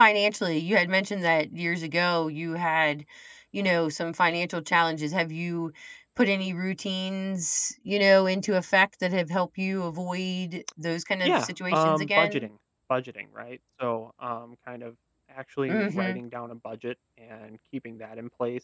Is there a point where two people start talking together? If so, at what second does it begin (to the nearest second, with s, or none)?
11 s